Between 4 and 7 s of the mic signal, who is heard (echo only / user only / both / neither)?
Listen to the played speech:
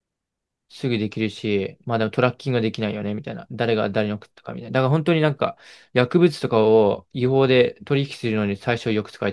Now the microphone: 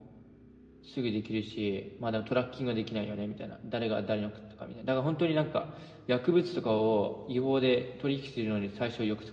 echo only